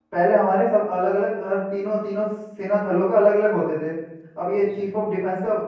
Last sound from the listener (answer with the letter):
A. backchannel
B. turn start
A